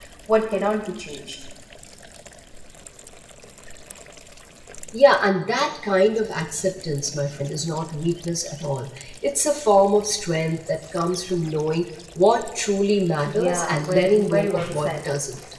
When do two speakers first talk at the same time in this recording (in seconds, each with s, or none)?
13.2 s